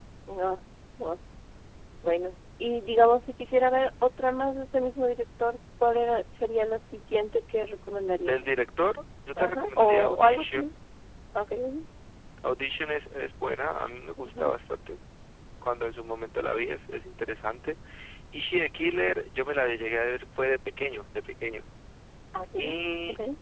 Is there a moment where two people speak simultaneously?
Yes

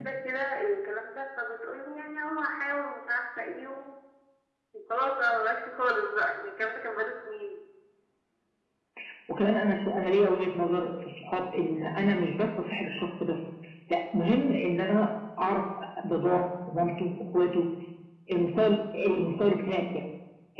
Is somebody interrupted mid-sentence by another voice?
No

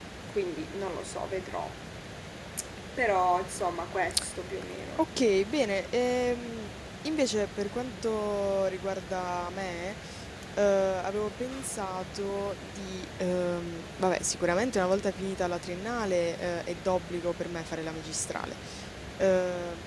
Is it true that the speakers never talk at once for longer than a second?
Yes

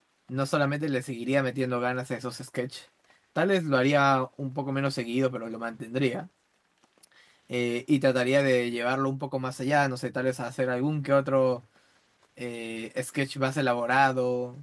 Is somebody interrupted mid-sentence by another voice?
No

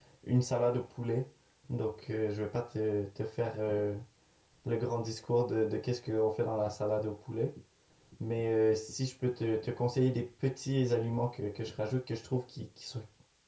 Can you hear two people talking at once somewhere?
No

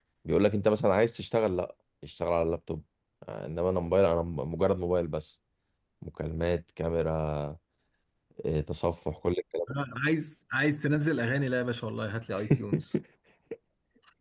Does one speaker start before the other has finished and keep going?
No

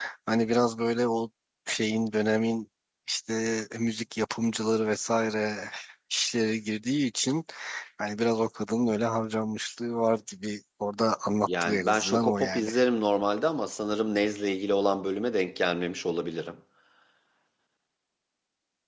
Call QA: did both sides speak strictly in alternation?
No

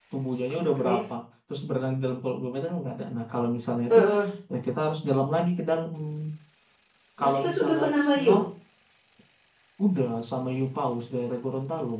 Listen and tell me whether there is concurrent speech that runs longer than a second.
Yes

